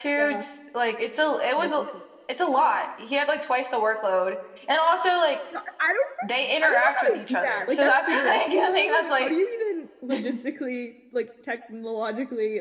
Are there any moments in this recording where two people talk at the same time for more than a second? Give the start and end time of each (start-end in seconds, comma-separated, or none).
6.6-9.3